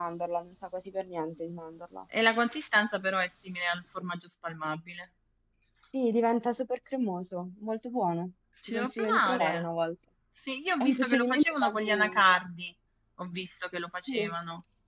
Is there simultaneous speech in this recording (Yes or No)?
Yes